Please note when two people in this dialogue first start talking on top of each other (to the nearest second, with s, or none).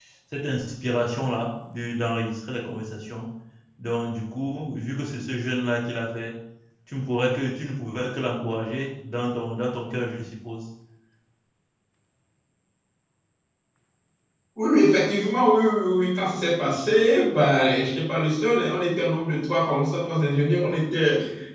none